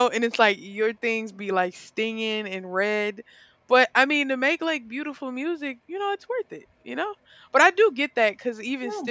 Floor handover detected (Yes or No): No